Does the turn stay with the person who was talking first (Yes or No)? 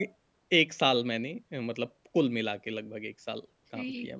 No